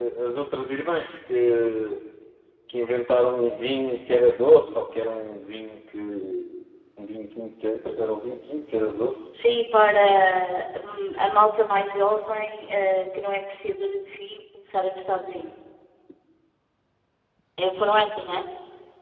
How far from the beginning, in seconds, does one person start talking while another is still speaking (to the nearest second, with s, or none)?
none